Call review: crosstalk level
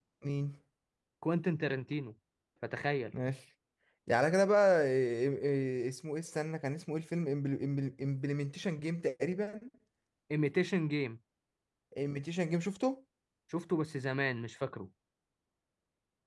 none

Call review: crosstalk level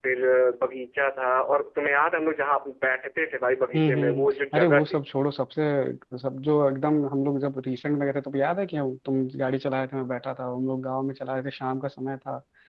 present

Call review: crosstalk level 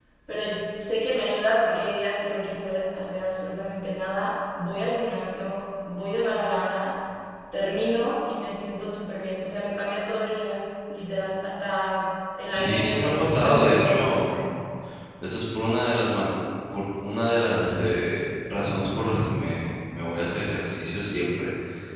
present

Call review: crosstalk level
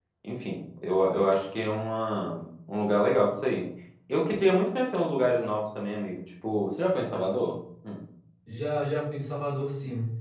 none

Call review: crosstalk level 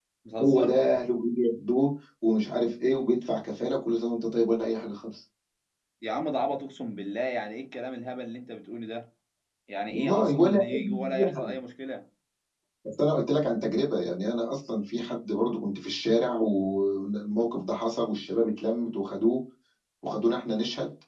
present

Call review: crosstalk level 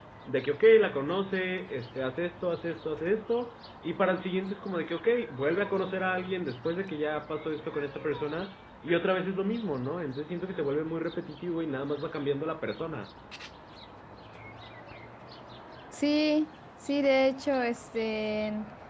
none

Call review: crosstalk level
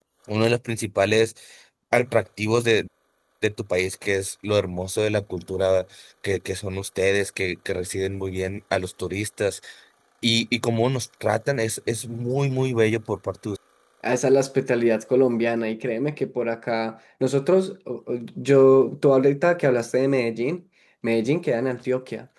none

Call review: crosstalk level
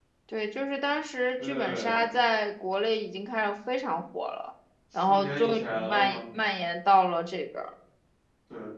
present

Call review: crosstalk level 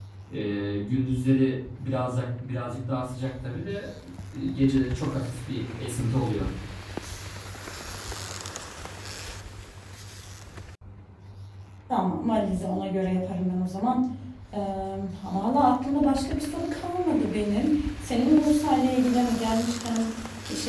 none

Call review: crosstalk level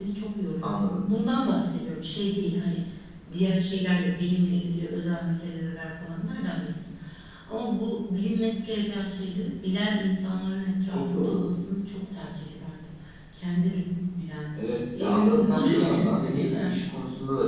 present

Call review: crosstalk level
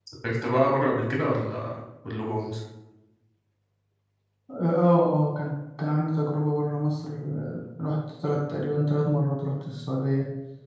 none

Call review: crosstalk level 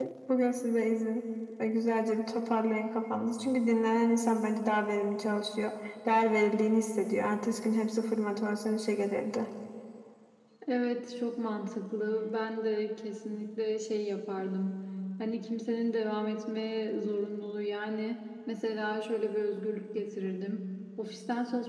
none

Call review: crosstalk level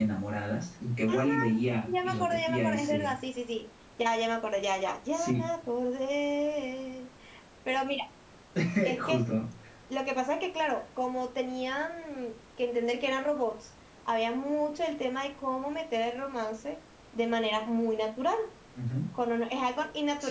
present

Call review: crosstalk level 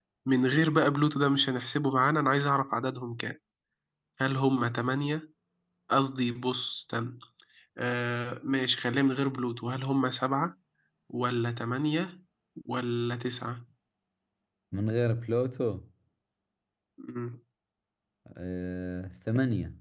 none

